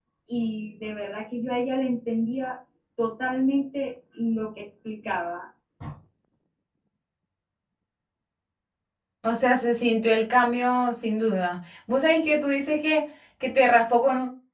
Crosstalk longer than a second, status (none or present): none